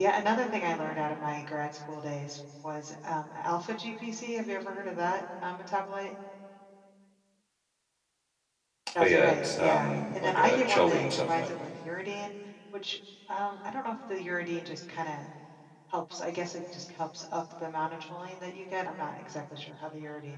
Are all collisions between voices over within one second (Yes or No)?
No